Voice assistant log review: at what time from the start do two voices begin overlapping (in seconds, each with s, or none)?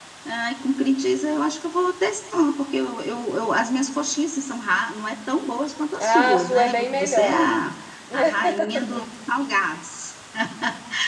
6.0 s